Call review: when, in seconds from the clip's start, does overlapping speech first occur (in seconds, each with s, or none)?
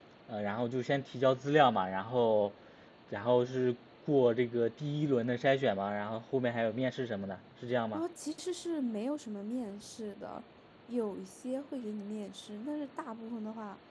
none